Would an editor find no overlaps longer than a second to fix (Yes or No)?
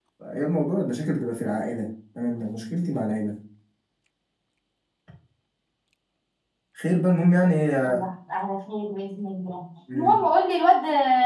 Yes